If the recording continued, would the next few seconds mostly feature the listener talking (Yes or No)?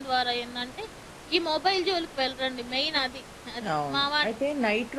Yes